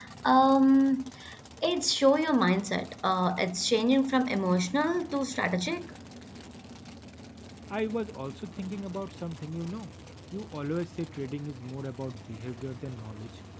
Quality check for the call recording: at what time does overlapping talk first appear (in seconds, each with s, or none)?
none